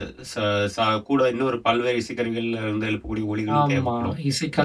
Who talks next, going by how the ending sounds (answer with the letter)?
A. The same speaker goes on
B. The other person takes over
B